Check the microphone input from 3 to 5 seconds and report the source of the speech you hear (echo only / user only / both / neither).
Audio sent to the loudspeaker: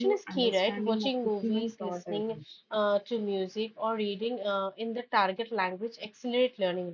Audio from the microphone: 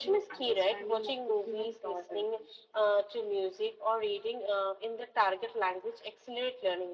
echo only